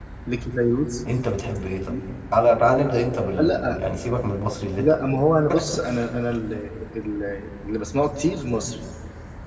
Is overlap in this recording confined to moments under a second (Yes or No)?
Yes